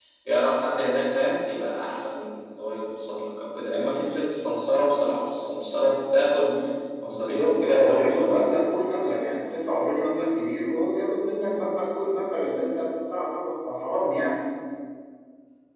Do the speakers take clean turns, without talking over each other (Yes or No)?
No